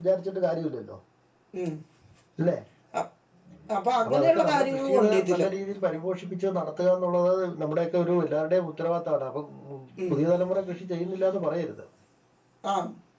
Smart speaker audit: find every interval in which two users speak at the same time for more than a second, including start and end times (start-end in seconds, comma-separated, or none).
4.0-5.5